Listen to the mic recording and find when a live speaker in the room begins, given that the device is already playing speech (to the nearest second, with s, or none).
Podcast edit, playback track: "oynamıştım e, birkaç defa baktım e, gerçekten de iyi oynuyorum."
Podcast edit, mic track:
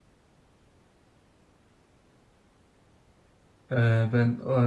4 s